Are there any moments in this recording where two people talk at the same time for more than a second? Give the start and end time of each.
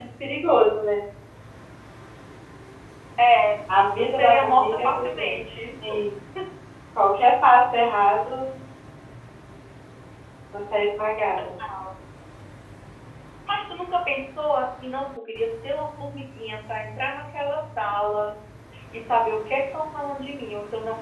4.0-5.4

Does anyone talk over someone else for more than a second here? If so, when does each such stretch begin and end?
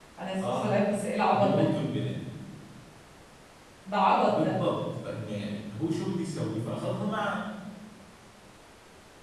none

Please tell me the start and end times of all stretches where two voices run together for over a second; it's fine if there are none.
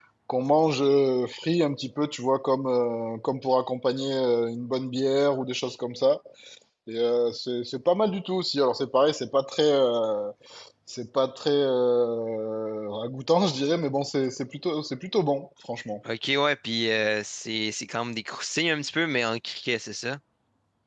none

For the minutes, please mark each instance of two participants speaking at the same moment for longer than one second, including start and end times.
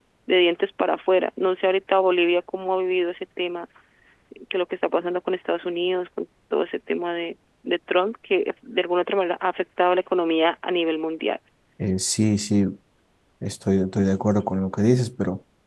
none

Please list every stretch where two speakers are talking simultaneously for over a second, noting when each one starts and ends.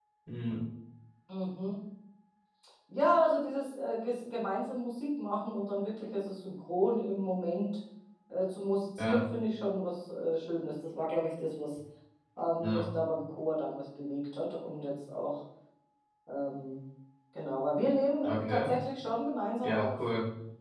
none

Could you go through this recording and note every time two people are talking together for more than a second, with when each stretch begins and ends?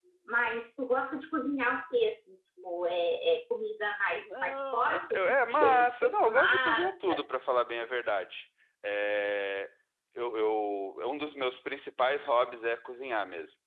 4.2-7.2

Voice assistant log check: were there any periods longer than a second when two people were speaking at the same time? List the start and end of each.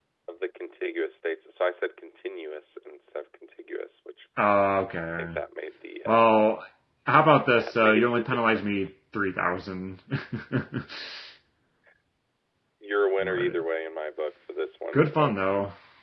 7.5-8.9

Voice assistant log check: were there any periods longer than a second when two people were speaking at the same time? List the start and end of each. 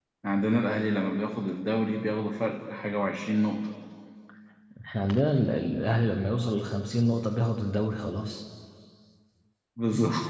none

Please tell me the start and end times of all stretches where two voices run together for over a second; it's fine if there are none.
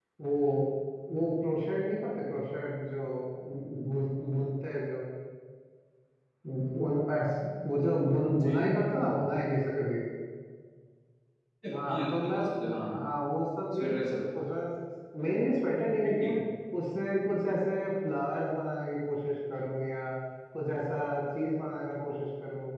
11.7-13.0

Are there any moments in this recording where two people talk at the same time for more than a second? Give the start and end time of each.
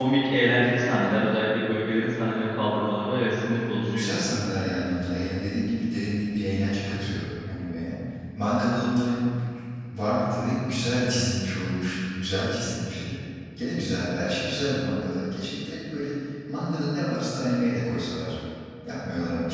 none

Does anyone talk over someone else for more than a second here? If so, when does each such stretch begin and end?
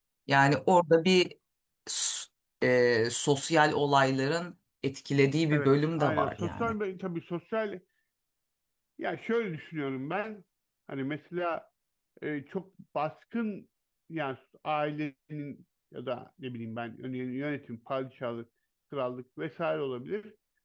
5.5-6.7

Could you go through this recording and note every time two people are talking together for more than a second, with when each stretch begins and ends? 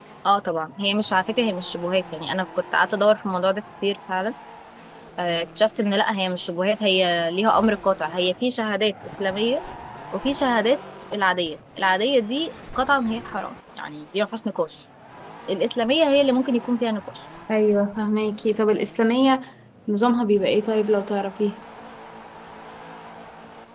none

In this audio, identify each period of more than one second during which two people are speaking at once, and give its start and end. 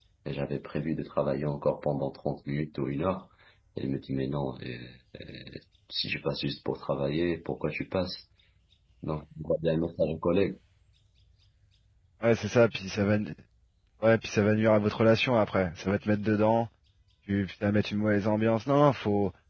none

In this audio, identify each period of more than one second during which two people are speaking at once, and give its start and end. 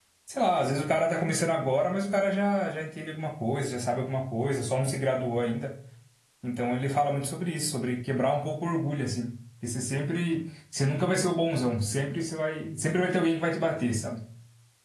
none

